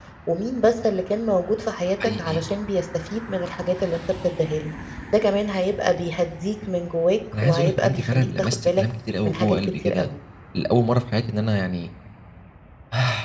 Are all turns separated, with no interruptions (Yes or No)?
No